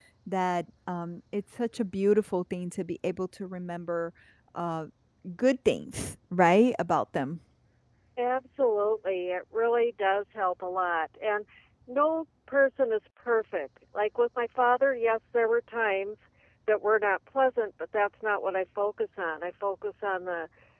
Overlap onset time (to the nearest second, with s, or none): none